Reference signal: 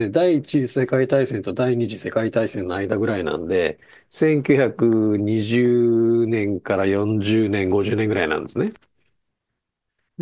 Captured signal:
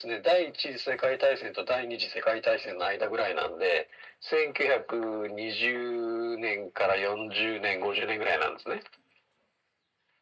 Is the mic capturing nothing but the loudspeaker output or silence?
Yes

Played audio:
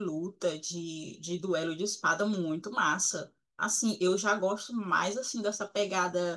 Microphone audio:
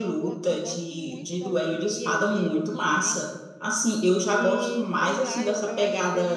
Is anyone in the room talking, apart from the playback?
Yes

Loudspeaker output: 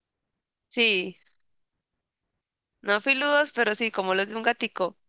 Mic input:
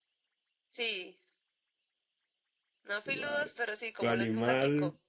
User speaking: Yes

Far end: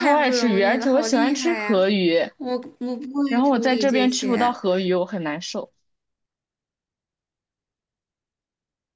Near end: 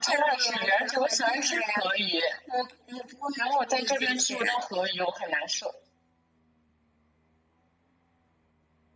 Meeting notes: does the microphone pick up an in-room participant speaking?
No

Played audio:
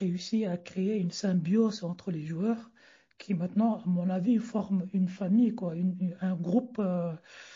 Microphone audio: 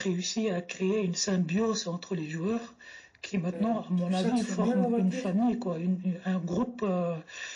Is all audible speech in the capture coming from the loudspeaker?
No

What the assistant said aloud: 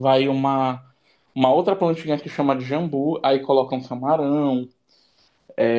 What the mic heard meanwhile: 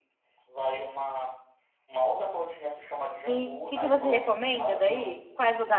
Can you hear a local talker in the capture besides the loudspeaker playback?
Yes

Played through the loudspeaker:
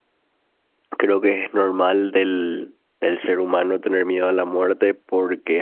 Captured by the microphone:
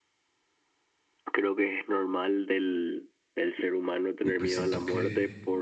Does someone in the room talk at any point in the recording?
Yes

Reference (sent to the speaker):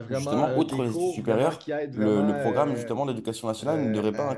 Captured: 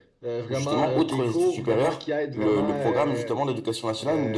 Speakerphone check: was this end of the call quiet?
Yes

